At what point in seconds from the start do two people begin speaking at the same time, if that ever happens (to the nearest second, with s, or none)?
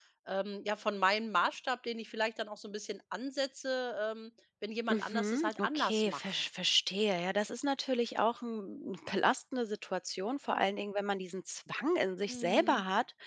5 s